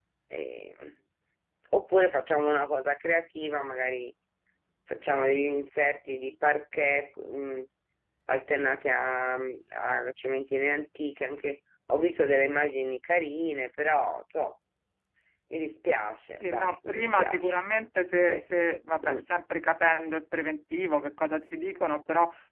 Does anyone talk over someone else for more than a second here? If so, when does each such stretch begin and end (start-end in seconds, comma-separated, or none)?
16.3-17.5